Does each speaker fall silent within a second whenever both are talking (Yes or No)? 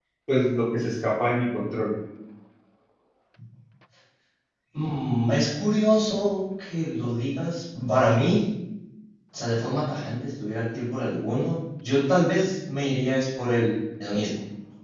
Yes